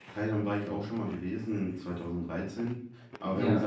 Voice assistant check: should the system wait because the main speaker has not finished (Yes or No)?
Yes